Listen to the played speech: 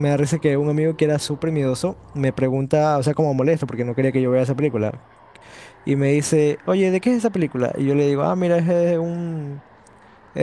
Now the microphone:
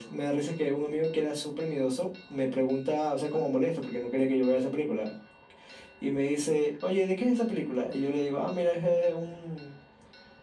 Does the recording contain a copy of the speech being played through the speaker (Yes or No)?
Yes